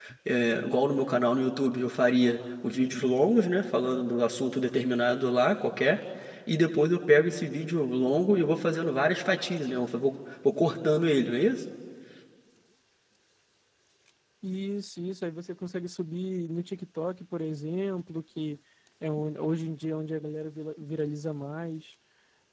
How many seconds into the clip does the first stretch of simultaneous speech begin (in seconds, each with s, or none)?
none